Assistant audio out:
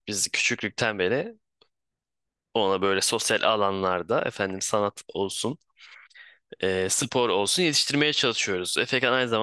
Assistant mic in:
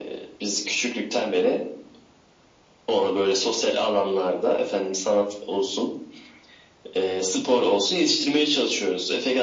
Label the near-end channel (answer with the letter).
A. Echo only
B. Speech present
A